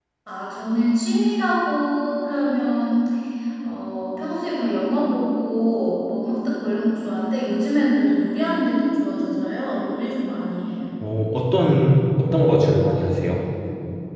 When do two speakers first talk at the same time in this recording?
none

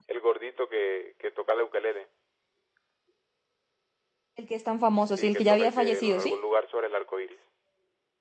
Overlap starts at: 5.2 s

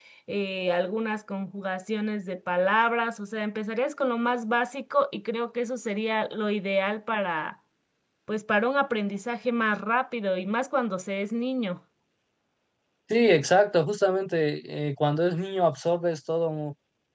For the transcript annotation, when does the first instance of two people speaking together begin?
none

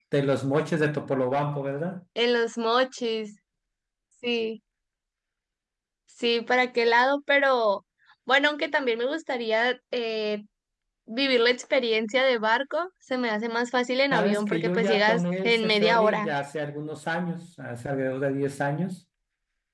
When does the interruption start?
14.1 s

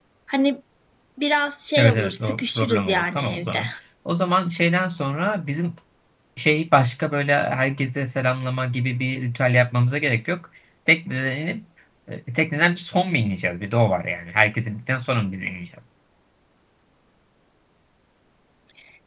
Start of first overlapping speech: 1.8 s

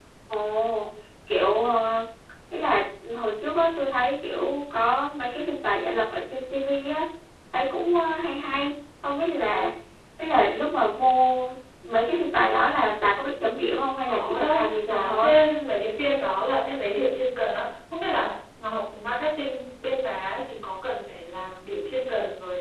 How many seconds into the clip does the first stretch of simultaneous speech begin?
14.1 s

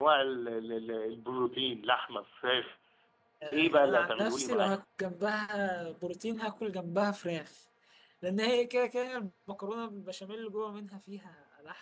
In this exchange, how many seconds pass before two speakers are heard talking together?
3.5 s

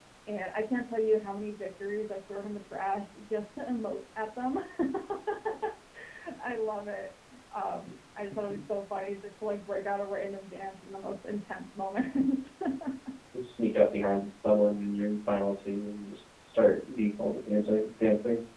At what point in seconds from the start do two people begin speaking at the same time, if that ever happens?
none

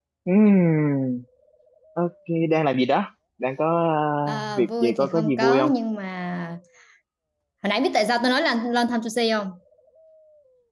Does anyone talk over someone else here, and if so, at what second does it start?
4.5 s

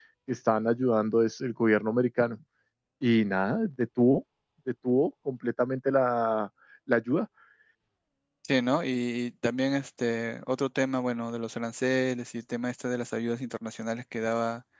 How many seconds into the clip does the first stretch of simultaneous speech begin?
none

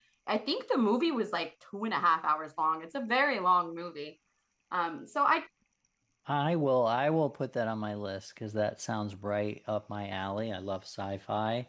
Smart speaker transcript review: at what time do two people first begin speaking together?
none

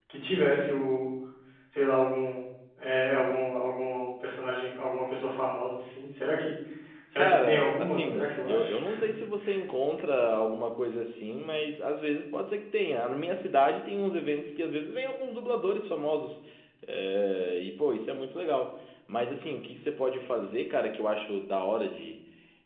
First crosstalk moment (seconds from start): 7.2 s

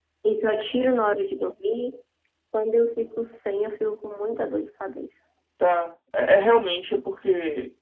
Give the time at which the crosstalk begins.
none

